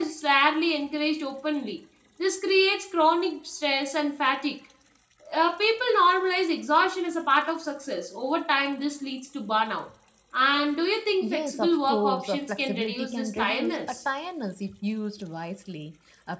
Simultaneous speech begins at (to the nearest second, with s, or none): 11 s